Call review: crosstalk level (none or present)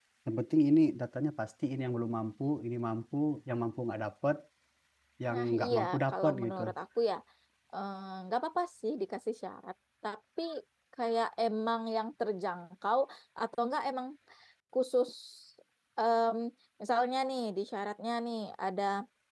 present